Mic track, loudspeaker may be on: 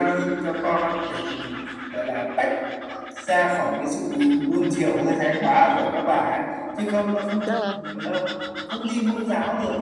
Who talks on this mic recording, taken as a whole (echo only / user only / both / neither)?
both